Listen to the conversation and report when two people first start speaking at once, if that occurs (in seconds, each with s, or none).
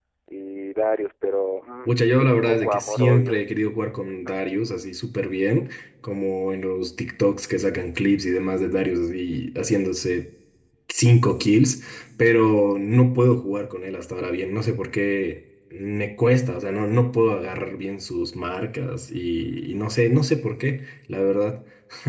1.9 s